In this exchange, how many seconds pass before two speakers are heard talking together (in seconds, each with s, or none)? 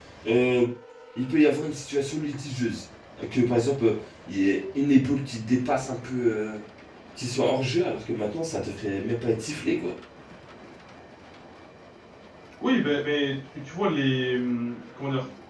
none